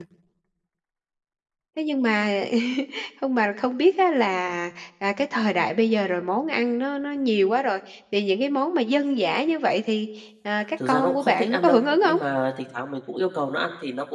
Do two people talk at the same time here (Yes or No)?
Yes